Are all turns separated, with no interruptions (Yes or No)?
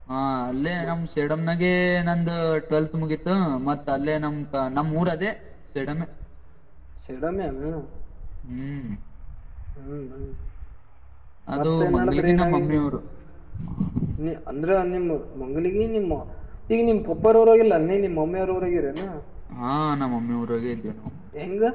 No